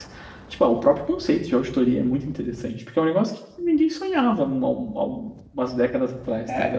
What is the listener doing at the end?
taking over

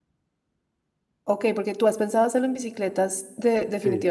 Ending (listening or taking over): taking over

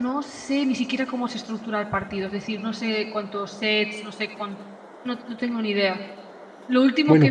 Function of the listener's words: listening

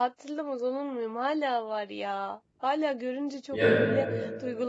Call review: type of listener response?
listening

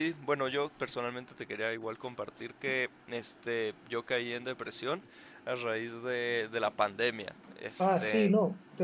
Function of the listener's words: taking over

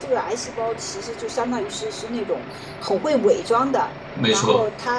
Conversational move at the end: listening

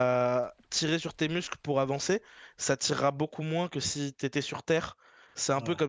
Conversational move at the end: listening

